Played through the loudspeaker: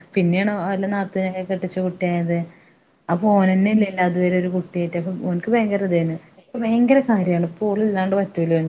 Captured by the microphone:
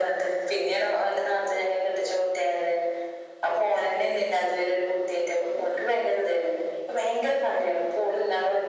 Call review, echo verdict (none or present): present